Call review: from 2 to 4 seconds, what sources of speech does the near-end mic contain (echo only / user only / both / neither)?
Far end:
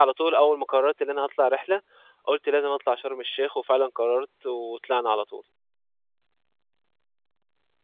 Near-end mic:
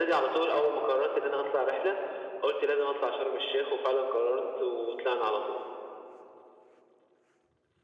echo only